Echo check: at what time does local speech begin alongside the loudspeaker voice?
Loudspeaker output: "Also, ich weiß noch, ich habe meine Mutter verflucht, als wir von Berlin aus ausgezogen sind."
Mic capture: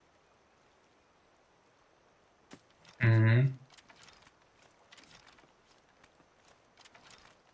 3.0 s

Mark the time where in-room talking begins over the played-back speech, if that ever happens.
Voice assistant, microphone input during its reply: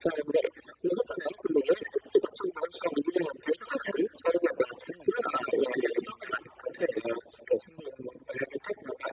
none

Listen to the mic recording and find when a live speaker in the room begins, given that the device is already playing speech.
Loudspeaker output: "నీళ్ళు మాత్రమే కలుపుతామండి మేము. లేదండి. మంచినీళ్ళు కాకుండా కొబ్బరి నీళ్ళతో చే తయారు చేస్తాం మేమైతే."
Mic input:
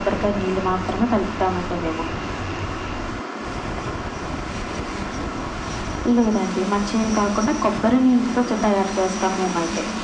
none

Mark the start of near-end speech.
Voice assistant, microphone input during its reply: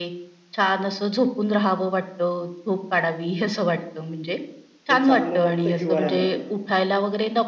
4.9 s

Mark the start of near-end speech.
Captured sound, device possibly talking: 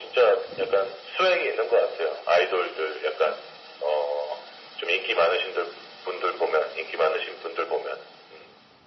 none

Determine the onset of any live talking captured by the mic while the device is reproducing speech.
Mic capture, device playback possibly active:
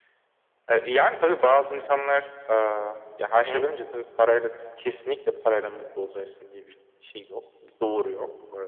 3.3 s

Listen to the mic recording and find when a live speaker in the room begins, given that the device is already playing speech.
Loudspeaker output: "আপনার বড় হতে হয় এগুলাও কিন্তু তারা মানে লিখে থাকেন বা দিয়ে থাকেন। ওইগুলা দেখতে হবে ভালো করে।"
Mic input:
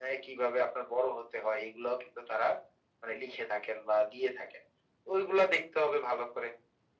none

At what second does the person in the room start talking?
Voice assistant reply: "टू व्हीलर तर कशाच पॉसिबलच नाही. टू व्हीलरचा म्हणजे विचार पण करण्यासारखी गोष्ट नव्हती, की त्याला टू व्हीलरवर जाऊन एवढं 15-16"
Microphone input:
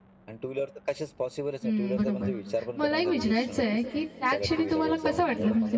1.6 s

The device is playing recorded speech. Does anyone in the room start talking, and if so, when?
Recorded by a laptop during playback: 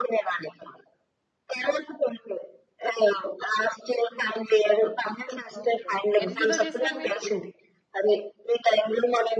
5.6 s

